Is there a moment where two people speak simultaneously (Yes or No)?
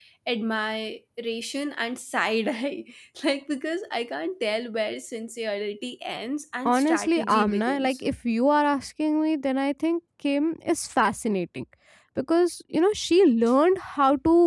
Yes